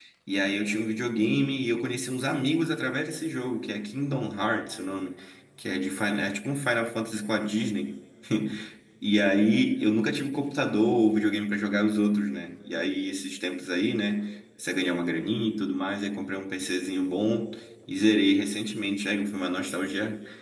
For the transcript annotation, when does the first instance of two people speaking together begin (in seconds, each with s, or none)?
none